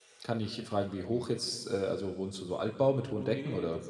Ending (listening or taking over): taking over